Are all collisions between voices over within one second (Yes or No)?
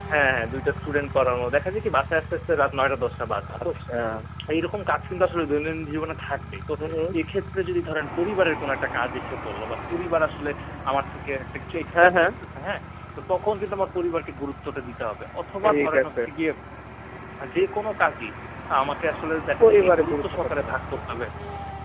No